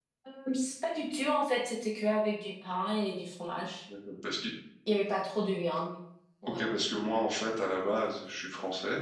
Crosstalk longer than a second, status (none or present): none